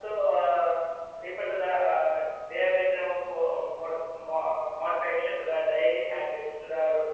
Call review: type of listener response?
listening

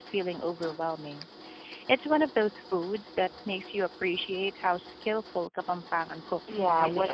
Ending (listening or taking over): taking over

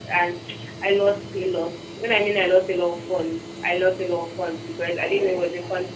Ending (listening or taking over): listening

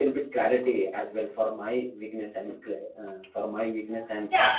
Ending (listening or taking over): taking over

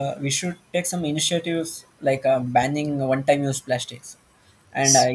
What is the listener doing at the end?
listening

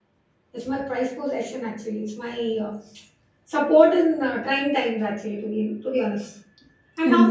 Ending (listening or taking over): listening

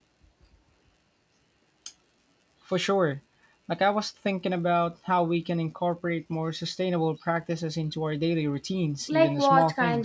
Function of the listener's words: taking over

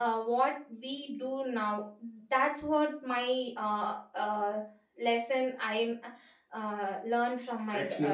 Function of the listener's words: taking over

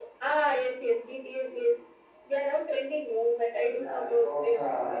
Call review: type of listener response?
taking over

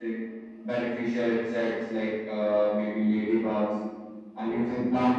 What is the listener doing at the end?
listening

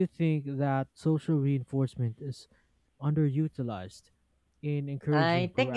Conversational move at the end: taking over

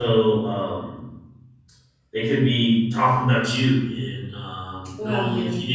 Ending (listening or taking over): listening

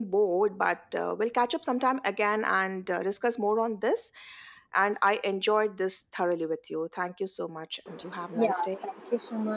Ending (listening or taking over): taking over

